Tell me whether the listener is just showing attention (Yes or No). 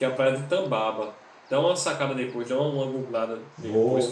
No